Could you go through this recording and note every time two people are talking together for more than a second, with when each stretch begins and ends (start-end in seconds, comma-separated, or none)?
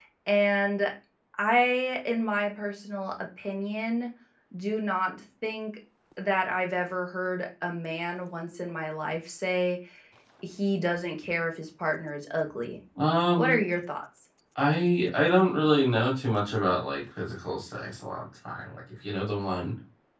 none